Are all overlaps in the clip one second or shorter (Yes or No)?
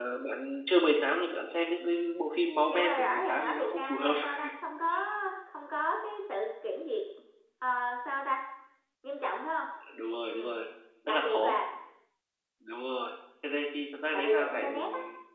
No